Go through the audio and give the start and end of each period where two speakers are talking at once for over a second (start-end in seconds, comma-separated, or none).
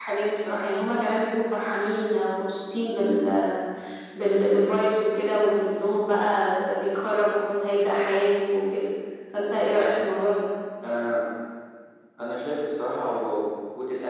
none